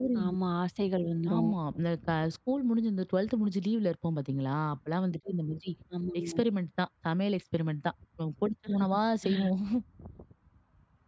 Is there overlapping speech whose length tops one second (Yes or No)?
No